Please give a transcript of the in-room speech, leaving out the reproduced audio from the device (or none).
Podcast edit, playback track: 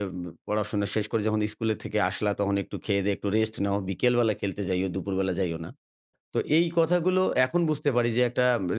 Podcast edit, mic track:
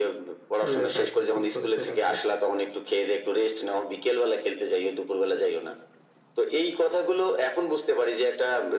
শুয়ে থাকো, ঠিক বলেছেন আপনি।